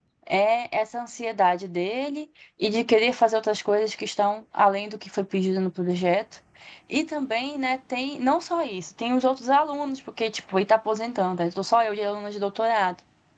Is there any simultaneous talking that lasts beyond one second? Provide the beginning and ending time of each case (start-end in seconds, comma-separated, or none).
none